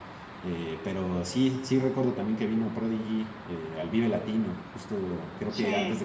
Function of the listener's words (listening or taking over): listening